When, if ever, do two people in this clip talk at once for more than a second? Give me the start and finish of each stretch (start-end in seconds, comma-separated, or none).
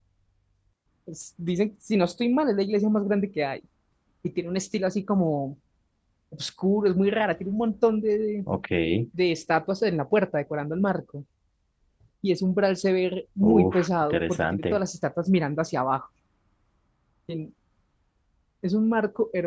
13.4-14.8